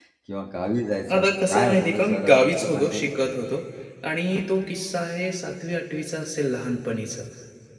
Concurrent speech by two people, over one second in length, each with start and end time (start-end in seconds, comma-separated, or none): 1.2-3.1